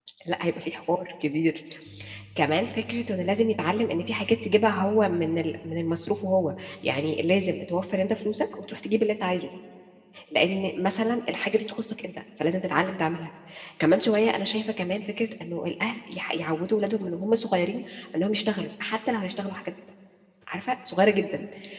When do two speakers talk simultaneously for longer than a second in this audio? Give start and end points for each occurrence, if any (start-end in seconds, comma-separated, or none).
none